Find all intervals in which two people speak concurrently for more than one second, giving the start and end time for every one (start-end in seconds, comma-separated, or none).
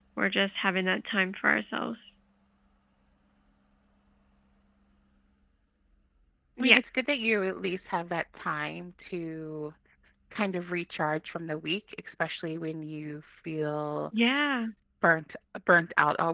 none